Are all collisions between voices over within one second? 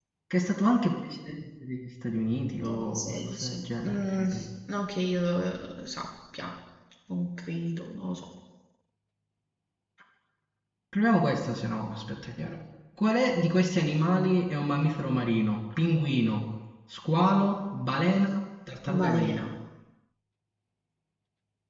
No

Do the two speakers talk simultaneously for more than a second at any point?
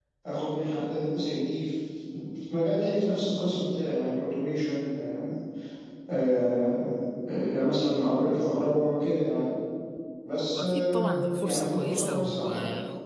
Yes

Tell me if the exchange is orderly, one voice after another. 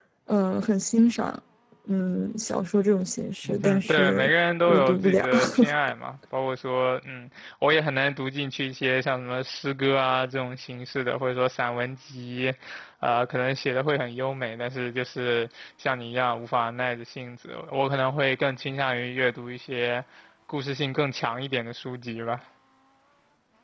No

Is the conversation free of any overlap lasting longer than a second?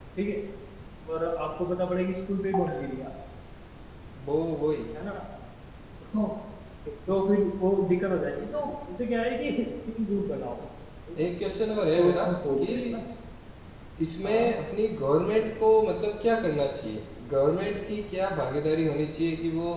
Yes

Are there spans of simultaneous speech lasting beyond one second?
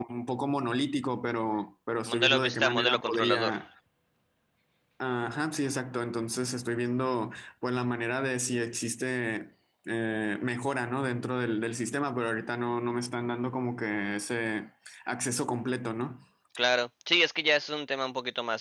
Yes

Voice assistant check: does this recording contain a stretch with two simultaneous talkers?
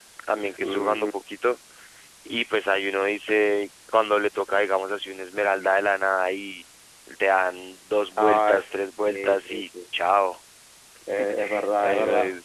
Yes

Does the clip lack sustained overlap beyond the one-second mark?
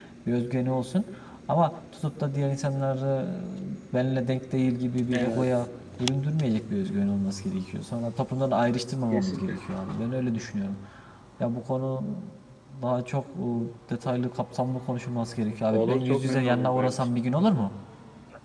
No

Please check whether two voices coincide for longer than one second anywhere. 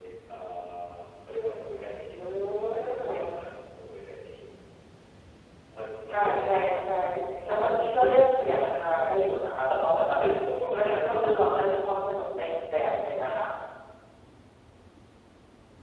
Yes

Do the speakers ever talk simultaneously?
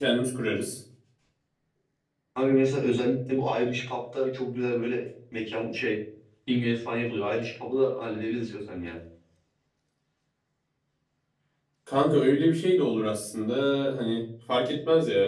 No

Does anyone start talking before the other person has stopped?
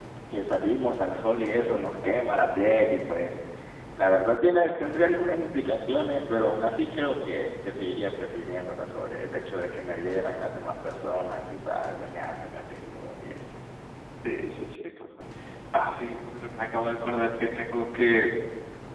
No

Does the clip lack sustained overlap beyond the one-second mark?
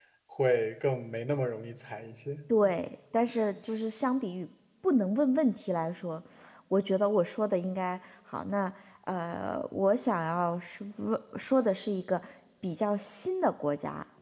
Yes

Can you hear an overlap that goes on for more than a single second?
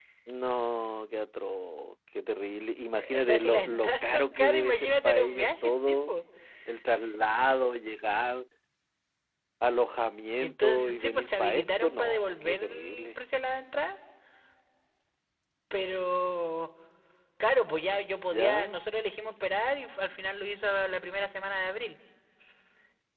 Yes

